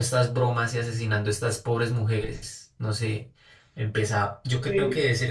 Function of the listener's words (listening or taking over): listening